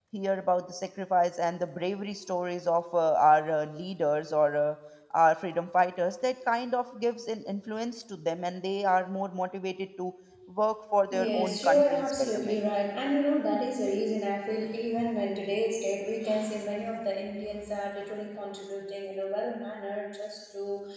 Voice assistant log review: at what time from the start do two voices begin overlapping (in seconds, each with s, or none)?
11.1 s